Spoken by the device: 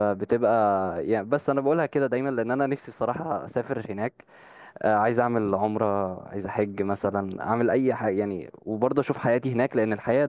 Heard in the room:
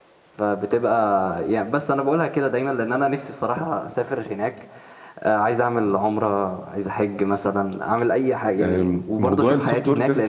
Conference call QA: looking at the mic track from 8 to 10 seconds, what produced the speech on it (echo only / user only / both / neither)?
both